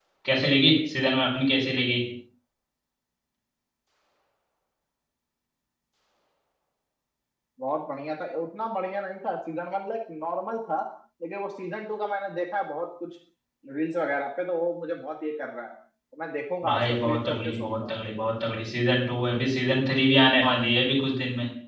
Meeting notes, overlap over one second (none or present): present